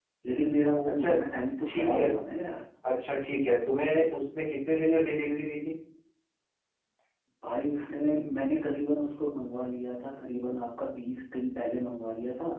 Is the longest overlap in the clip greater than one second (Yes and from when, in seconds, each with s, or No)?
No